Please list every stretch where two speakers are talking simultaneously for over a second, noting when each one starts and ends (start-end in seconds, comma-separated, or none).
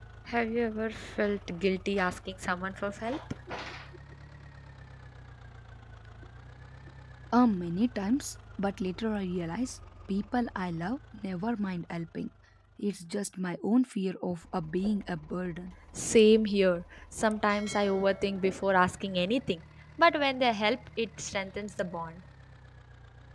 none